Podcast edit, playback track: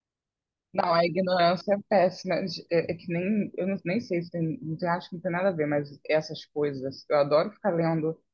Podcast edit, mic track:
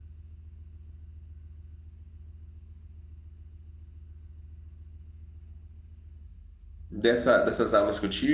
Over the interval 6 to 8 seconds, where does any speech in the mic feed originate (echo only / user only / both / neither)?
user only